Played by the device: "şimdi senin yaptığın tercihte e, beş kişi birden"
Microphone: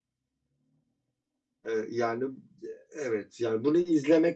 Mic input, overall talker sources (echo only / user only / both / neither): user only